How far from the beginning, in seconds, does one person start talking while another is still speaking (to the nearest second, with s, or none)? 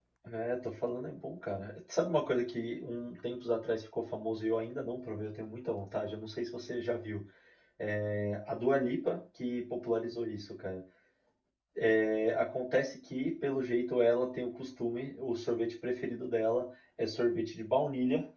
none